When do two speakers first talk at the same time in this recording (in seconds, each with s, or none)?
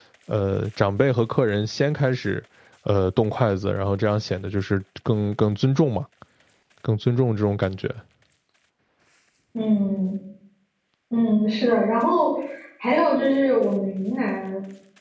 none